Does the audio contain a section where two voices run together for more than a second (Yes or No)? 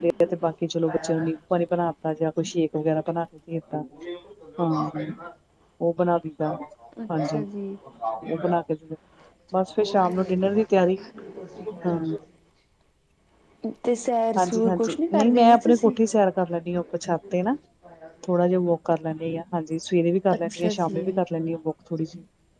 Yes